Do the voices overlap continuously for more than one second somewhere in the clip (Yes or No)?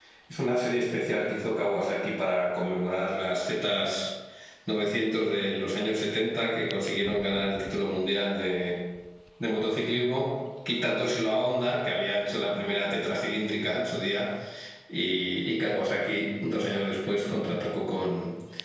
No